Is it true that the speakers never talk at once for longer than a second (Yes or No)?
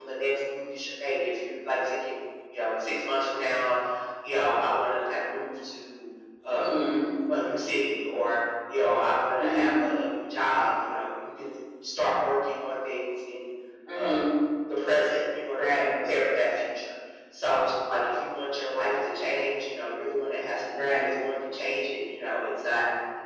Yes